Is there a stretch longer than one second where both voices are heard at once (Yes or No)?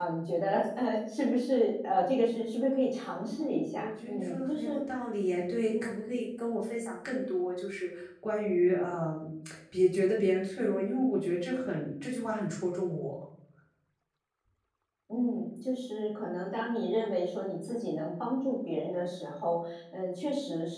Yes